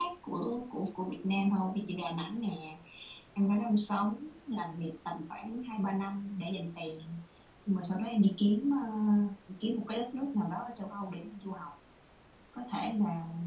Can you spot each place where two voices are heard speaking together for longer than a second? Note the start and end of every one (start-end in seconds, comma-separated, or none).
none